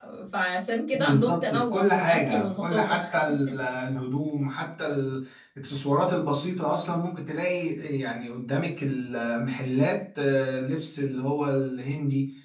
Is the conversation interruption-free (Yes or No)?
No